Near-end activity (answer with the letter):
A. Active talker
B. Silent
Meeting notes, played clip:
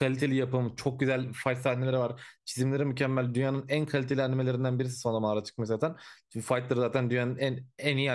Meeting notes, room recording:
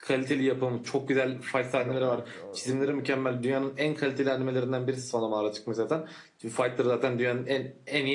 A